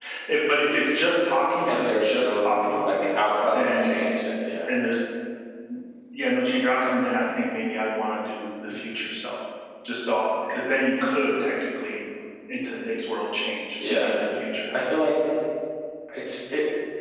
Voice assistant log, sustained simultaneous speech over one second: present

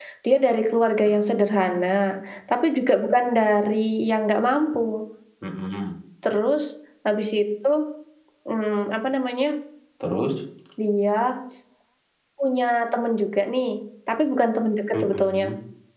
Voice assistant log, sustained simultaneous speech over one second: none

